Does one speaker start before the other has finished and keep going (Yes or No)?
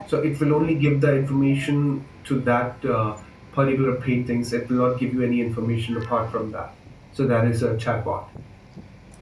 No